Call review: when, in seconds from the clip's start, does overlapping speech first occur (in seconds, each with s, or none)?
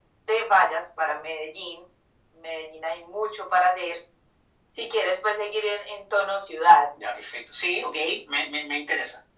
none